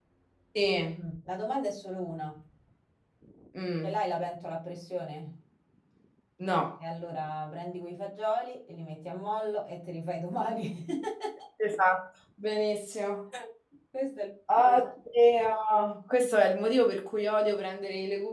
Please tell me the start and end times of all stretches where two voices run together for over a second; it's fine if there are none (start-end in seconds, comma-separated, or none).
none